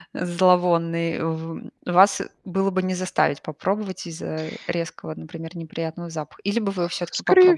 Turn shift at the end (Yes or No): Yes